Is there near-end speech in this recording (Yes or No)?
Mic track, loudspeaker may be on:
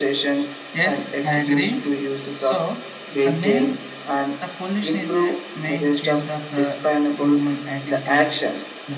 Yes